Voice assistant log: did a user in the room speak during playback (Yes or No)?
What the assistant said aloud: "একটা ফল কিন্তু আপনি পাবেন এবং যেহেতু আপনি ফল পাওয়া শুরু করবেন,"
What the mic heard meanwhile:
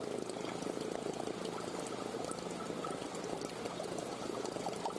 No